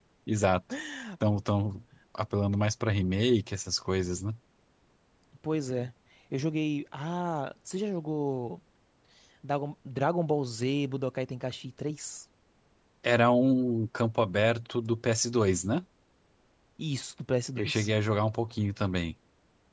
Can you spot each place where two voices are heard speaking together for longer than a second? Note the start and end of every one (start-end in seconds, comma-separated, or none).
none